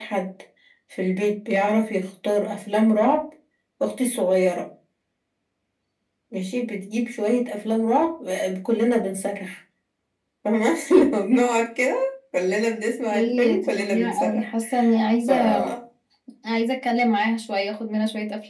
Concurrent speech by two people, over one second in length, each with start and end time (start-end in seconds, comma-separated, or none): 13.1-14.4